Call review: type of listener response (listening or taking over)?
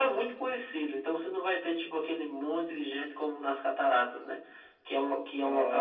listening